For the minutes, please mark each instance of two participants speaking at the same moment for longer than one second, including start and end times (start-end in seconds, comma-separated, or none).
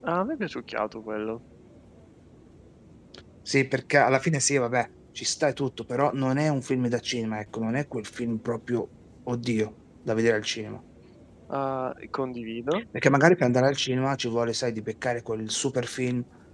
none